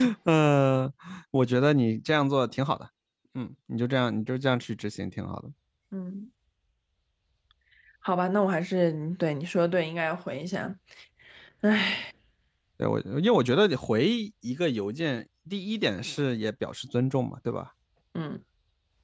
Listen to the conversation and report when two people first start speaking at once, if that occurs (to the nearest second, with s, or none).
none